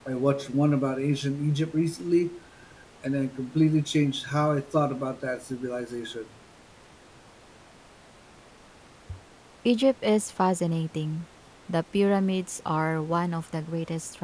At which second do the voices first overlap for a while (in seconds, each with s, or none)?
none